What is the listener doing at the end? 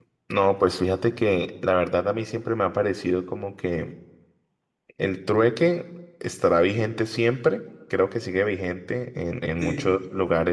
listening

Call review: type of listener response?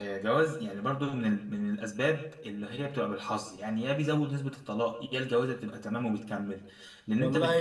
taking over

